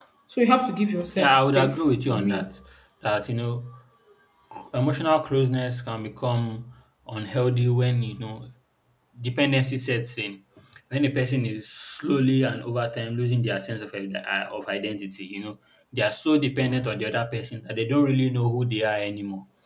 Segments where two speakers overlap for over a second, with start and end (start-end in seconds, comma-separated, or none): 1.2-2.4